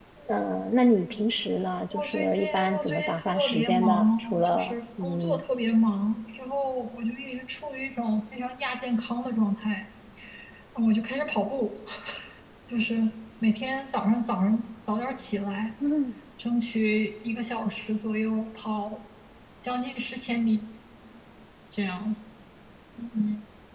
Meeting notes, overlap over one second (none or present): present